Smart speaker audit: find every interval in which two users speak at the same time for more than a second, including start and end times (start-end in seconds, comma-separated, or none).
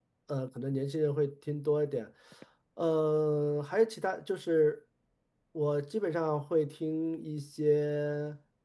none